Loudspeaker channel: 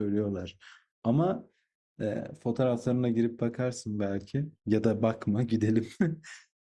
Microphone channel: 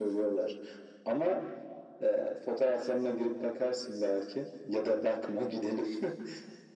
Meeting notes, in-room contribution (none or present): none